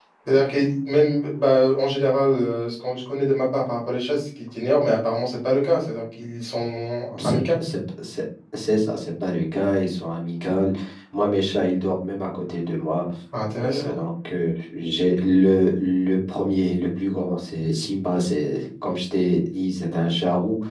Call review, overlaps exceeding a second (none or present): none